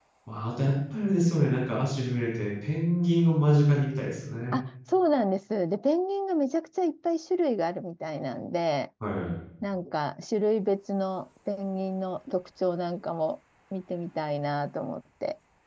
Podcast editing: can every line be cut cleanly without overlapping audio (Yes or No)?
Yes